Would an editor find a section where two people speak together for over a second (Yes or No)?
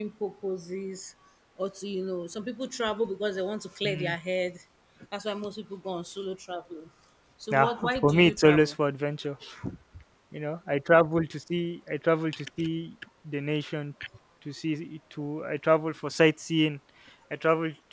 Yes